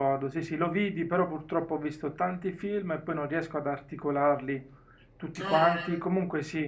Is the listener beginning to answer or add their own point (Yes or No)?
No